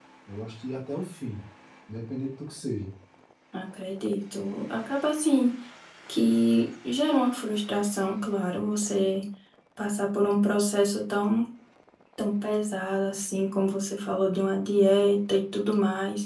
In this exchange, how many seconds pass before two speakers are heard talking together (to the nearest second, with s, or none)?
none